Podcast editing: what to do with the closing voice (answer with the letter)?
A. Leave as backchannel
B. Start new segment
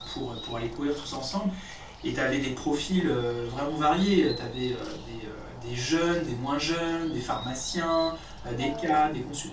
A